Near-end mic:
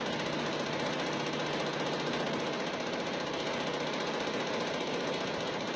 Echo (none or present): none